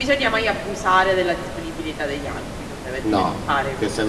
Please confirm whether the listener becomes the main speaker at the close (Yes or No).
Yes